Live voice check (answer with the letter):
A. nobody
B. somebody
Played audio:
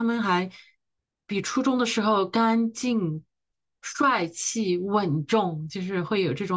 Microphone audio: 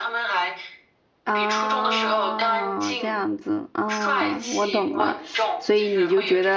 B